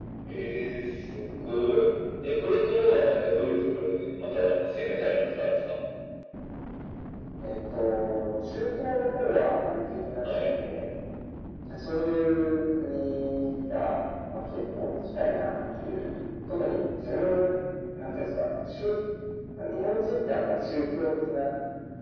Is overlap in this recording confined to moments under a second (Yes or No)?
Yes